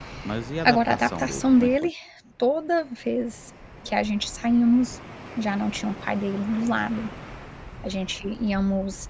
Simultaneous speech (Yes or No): Yes